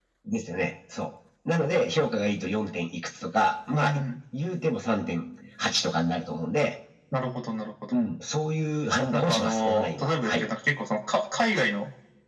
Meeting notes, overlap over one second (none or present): present